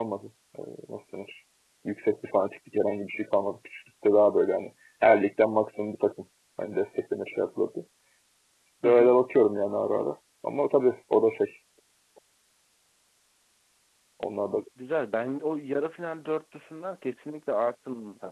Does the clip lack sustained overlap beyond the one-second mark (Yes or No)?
Yes